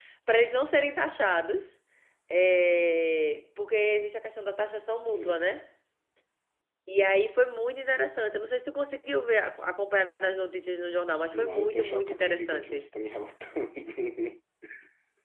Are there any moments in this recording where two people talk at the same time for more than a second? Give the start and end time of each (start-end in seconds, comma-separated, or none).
11.3-12.8